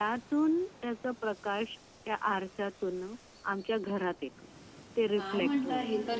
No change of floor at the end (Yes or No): No